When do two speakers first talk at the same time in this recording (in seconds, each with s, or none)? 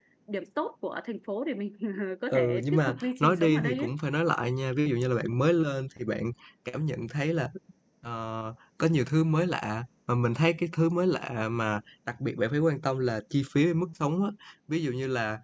2.3 s